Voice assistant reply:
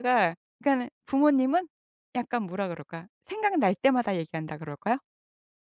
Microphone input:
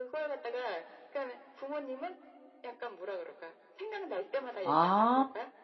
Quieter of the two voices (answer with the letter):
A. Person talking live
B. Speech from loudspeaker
B